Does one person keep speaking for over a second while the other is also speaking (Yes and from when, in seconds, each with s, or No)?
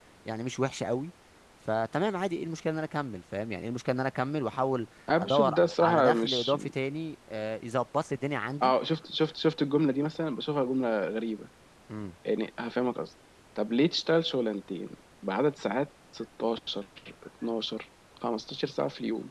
Yes, from 5.1 s